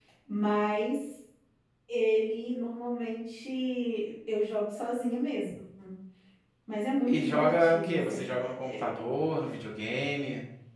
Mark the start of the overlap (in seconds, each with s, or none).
7.1 s